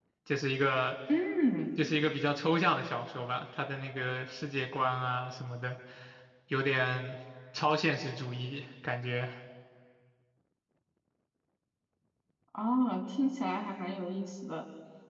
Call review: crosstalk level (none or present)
none